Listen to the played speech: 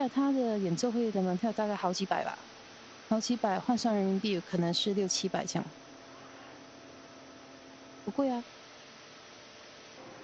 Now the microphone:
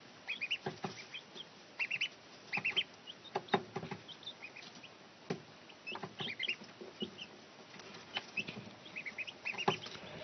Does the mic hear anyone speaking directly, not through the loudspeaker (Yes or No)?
No